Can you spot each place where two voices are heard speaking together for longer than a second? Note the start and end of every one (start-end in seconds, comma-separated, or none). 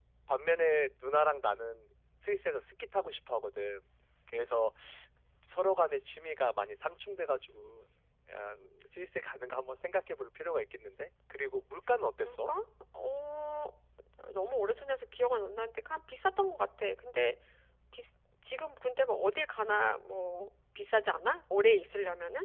none